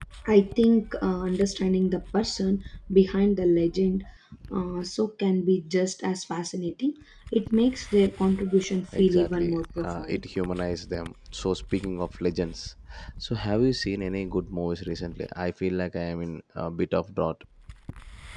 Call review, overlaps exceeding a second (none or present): present